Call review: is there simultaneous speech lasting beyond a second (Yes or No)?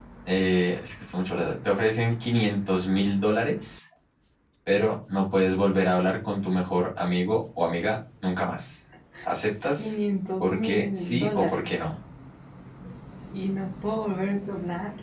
Yes